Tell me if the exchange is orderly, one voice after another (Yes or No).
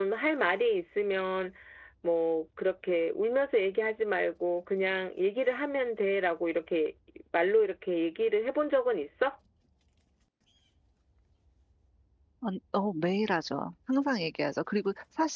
Yes